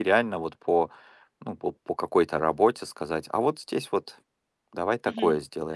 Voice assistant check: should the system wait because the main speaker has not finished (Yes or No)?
No